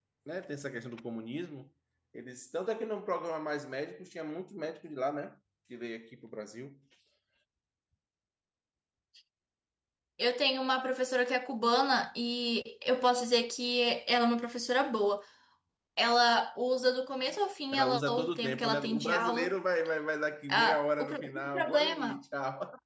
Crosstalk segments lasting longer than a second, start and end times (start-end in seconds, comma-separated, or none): 17.7-19.5, 20.5-22.2